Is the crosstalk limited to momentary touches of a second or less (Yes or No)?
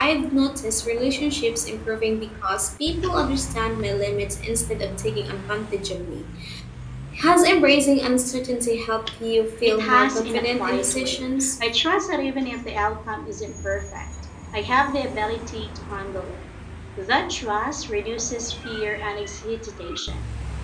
No